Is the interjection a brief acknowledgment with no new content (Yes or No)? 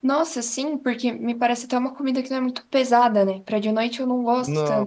Yes